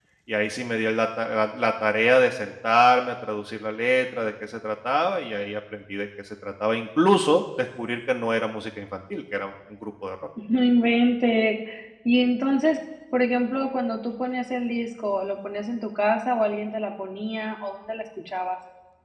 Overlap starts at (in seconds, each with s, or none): none